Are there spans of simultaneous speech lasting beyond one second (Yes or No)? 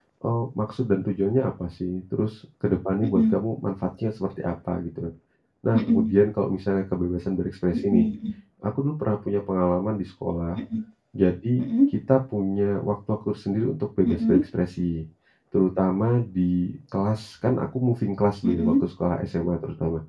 No